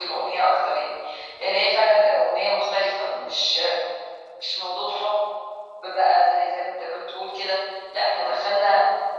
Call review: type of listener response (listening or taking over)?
listening